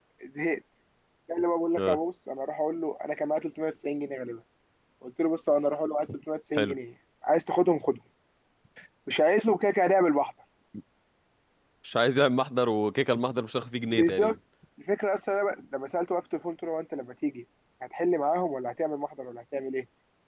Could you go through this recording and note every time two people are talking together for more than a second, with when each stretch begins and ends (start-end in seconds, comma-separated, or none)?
none